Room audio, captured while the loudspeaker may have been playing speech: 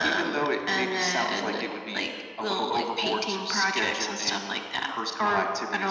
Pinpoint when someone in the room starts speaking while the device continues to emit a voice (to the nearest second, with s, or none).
none